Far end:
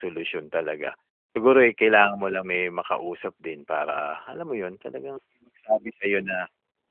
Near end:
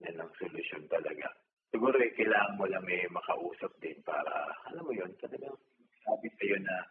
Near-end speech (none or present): none